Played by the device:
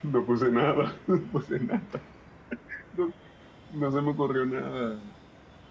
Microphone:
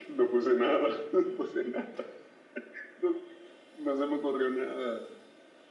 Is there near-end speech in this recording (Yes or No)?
No